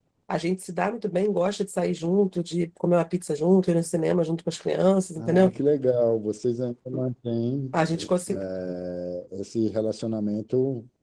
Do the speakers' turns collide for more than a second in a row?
No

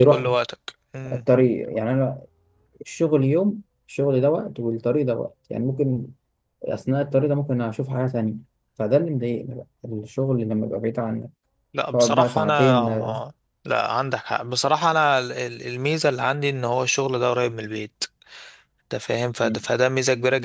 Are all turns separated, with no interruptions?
No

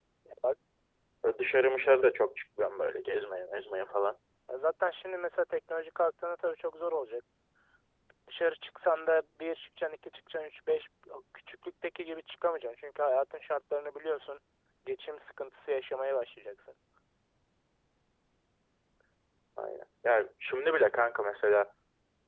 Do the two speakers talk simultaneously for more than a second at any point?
No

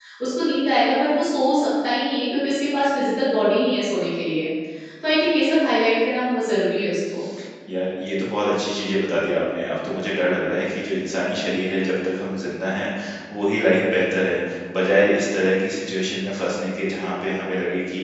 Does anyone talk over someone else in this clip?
No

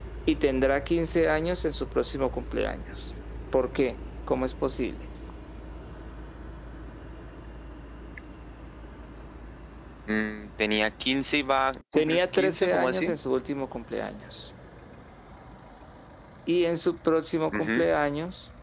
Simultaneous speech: Yes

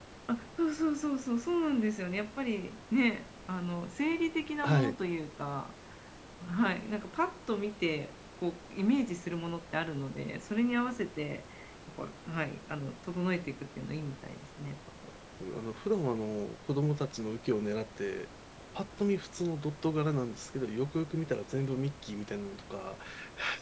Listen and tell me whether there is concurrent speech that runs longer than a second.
No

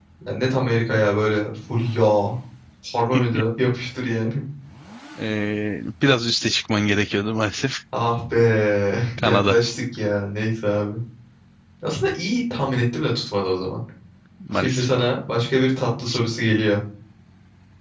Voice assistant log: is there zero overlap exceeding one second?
Yes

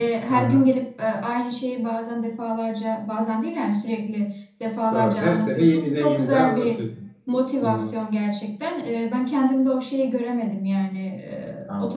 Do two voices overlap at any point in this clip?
Yes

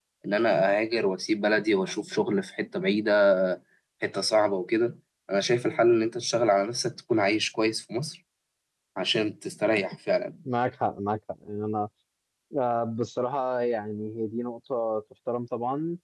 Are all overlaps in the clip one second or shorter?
Yes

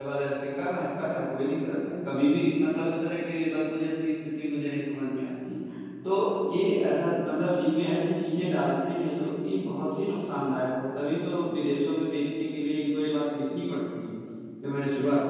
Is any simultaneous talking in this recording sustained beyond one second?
No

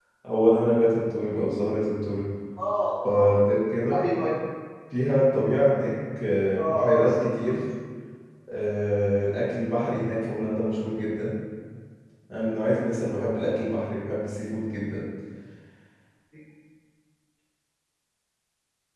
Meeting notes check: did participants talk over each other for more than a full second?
No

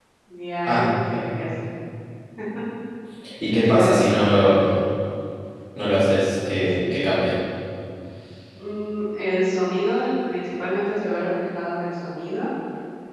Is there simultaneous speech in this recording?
Yes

